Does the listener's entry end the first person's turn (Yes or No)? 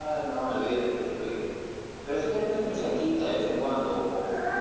Yes